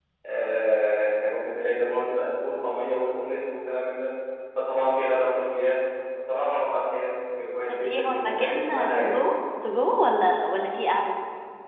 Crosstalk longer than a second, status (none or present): present